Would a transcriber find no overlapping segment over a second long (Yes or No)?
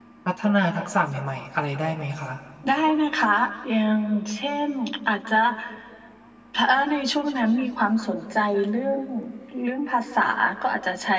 Yes